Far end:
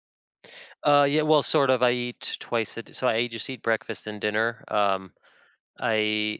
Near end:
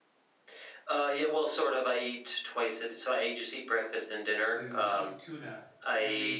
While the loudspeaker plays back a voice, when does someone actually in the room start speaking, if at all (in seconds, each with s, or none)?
4.5 s